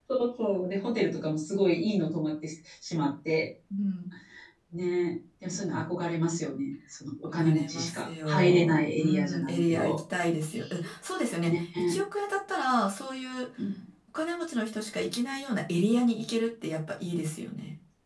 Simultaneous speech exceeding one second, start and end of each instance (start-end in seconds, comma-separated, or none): 7.2-10.0